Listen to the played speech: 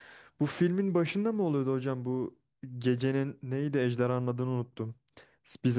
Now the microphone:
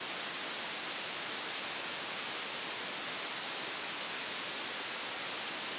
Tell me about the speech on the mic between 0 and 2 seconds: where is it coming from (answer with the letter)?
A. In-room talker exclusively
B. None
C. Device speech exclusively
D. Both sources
B